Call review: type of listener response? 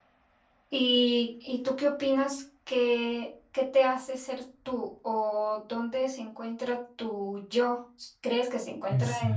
listening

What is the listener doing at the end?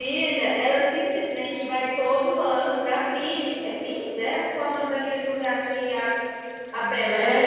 taking over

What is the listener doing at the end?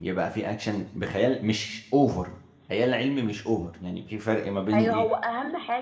taking over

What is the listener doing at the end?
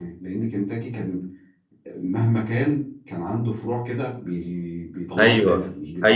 taking over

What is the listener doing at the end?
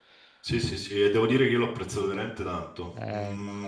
listening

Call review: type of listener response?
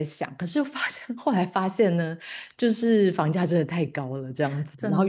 listening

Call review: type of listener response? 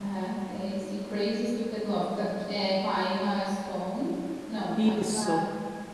listening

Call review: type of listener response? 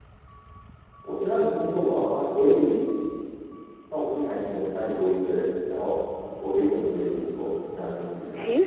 taking over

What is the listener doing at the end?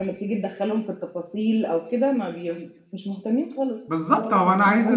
taking over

